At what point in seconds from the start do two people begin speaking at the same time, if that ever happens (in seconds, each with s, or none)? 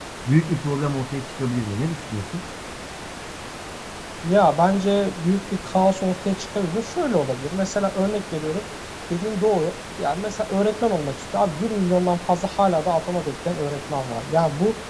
none